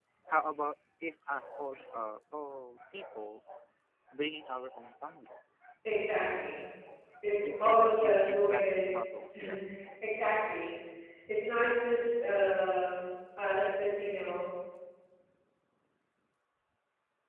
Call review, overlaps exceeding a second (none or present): present